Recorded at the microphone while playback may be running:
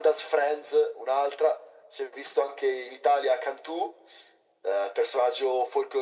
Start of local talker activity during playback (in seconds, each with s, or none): none